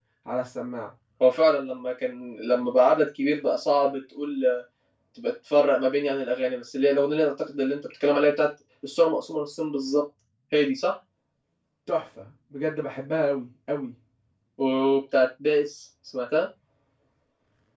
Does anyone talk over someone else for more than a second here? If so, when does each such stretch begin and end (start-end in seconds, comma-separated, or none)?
none